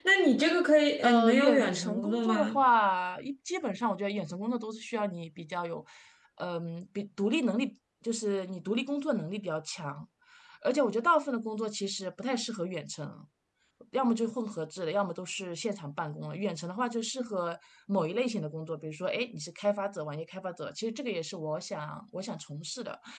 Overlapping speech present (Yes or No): Yes